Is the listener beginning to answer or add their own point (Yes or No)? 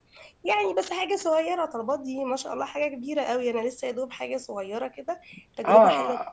Yes